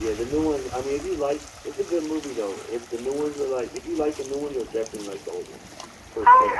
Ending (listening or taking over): taking over